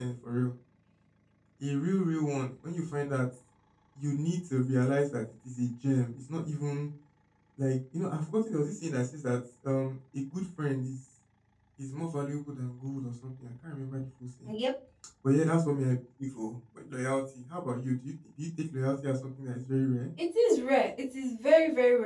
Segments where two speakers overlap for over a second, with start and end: none

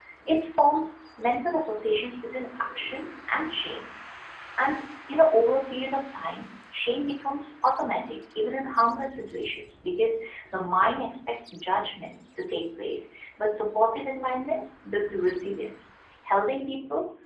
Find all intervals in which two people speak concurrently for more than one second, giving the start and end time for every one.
none

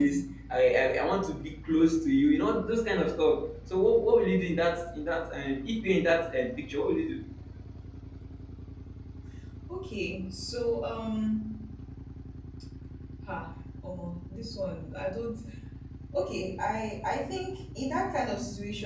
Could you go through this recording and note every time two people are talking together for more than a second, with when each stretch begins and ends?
none

